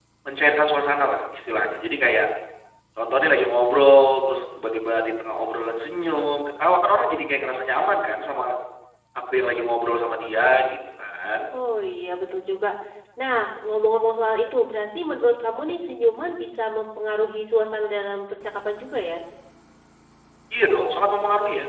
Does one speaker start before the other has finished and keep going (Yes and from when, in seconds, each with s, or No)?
No